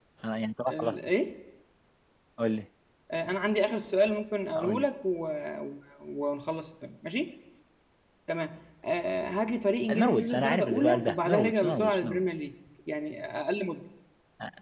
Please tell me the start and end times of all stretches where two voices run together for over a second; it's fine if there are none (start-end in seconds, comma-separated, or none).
10.0-12.2